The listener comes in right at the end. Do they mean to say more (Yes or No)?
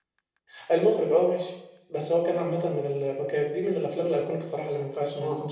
Yes